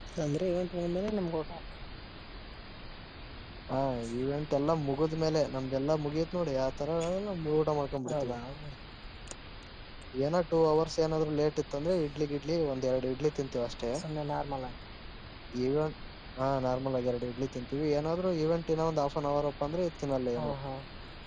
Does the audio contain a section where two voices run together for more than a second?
No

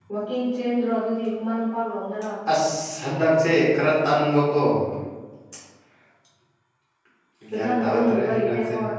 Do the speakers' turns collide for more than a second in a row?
Yes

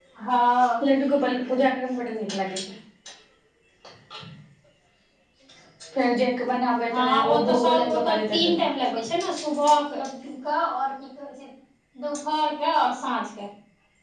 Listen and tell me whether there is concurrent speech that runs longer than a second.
Yes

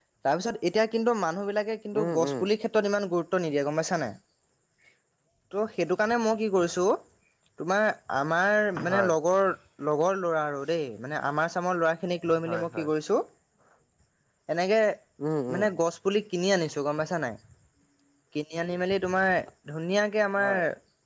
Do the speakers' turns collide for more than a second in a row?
No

